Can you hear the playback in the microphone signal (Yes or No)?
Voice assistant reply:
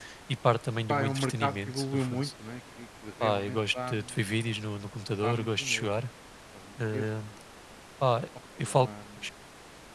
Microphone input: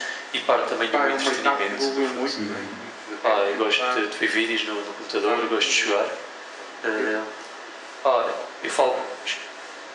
Yes